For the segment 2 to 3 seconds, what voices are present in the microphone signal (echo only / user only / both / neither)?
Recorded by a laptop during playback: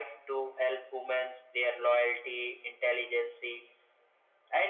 echo only